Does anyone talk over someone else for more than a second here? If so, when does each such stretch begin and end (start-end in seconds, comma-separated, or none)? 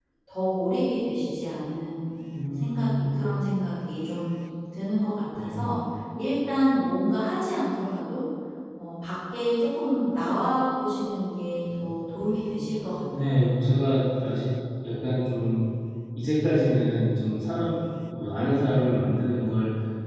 none